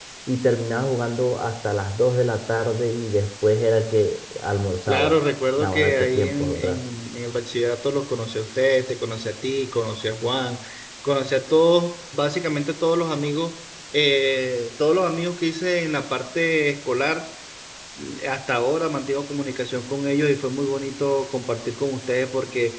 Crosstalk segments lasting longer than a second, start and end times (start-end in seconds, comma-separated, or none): 5.6-6.8